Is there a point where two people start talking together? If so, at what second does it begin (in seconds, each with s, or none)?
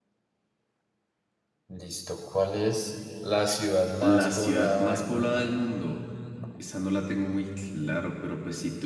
4.0 s